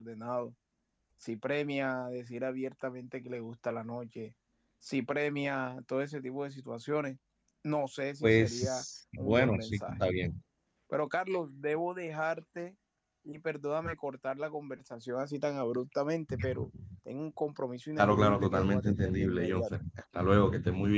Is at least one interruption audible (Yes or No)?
Yes